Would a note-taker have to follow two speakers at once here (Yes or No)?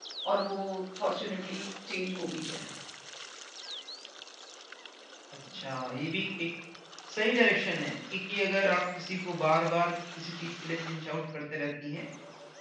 No